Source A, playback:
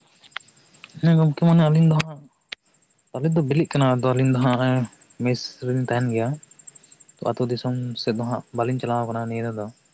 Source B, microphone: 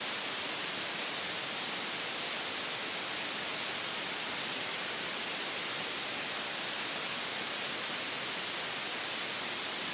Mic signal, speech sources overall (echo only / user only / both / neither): neither